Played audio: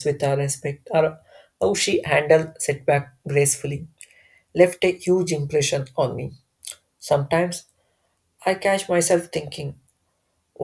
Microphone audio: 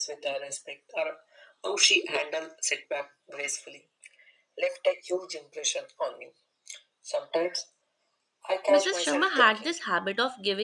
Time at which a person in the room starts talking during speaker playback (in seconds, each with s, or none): 8.7 s